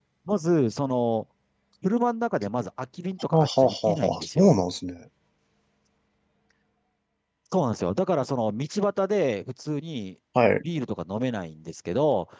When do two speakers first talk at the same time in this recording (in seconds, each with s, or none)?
3.3 s